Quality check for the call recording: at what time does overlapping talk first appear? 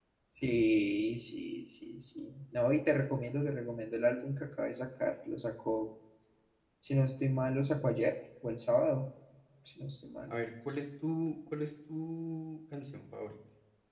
none

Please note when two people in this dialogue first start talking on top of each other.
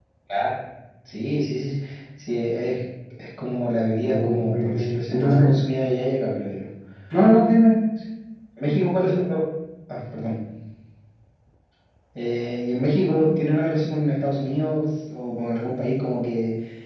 4.0 s

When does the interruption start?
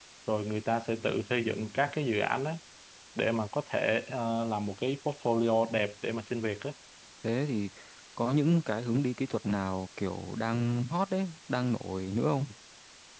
none

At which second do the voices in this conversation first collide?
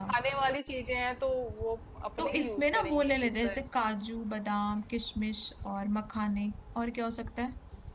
2.2 s

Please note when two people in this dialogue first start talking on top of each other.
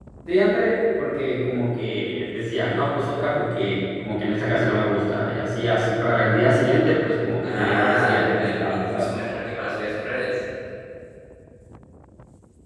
7.4 s

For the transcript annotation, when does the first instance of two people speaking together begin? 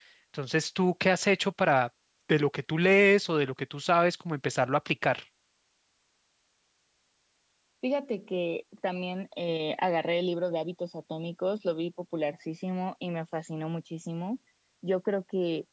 none

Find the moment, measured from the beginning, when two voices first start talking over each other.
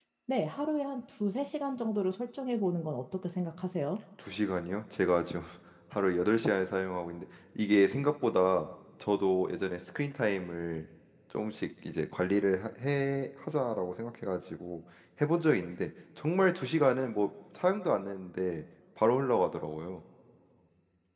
none

